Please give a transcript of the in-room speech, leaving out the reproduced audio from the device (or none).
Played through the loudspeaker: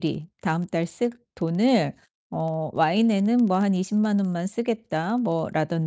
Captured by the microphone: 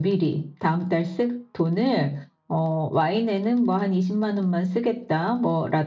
none